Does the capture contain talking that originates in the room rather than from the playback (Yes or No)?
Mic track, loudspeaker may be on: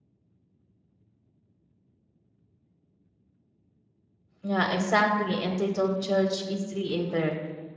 Yes